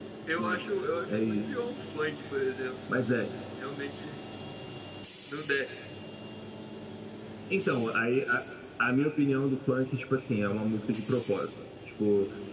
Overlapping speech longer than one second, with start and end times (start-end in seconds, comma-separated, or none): none